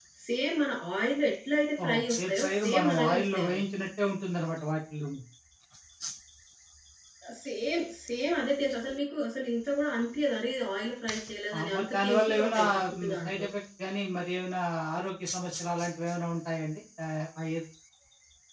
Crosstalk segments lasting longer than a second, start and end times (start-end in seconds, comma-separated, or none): 1.8-3.6, 11.6-13.5